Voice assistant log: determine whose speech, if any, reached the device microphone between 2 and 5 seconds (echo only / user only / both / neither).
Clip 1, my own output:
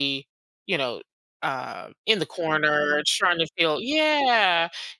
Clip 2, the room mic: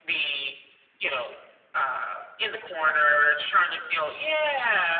echo only